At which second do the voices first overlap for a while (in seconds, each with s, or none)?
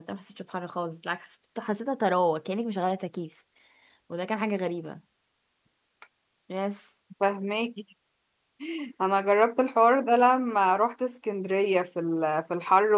none